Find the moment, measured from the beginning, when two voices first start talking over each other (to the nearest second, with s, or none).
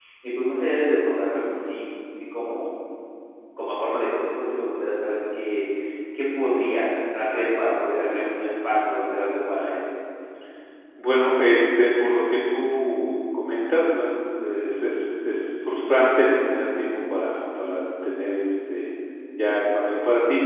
none